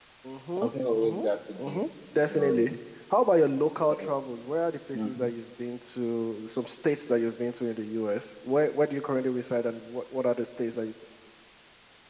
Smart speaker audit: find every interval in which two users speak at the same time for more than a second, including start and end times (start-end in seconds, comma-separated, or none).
0.6-1.8